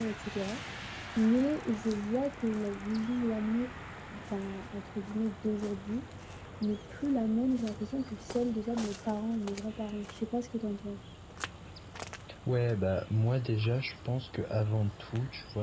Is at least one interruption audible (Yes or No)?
No